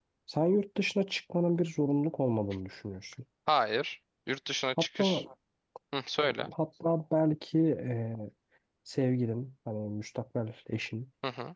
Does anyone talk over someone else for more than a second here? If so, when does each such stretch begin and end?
none

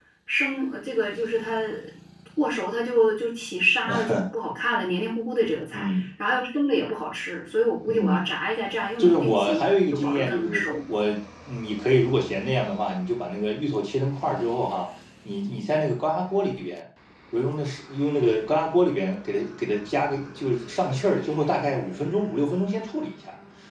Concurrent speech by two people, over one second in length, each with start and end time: 9.0-10.6

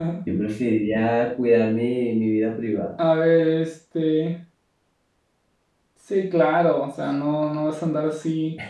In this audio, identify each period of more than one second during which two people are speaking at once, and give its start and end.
none

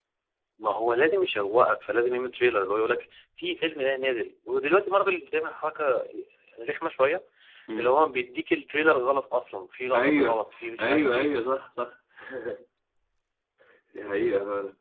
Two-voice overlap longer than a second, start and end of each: 9.9-11.3

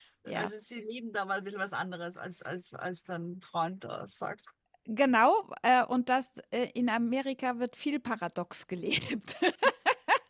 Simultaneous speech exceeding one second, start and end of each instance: none

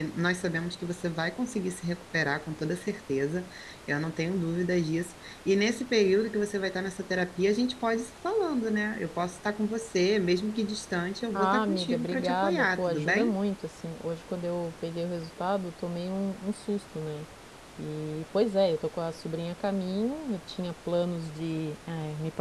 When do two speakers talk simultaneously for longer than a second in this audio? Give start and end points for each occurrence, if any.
11.3-13.3

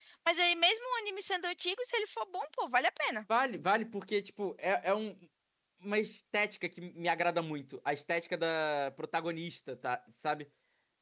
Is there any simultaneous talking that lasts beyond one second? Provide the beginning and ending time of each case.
none

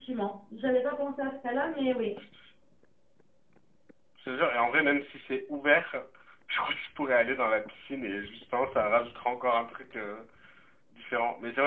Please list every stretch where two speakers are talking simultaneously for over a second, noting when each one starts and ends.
none

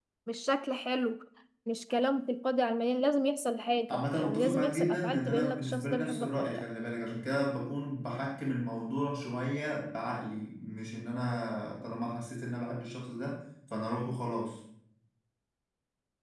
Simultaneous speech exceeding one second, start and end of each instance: 3.9-6.6

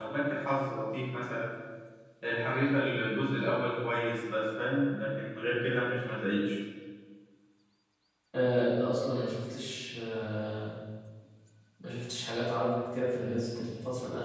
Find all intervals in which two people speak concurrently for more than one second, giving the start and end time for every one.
none

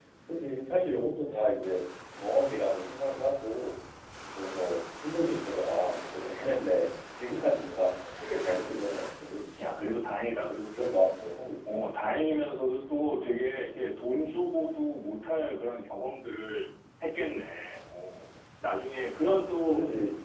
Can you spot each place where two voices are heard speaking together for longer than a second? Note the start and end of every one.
none

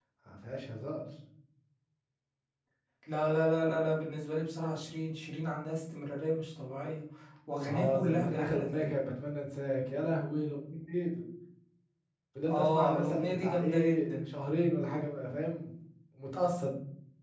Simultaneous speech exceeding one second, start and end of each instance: 7.7-9.0, 12.5-14.1

